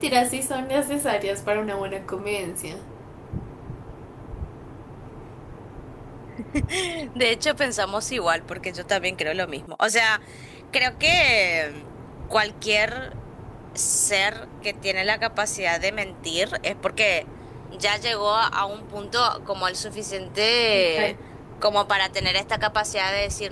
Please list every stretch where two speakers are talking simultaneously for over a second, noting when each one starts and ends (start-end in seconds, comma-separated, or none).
none